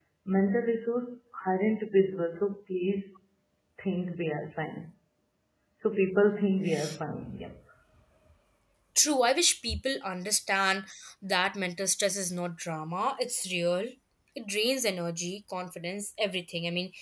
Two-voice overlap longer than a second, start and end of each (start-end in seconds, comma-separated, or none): none